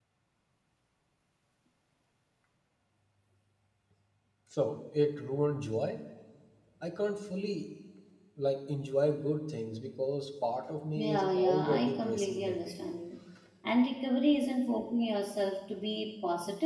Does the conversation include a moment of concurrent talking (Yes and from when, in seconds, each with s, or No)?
Yes, from 11.0 s